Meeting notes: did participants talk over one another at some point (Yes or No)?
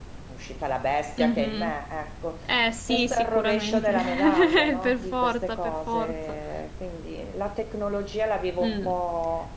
Yes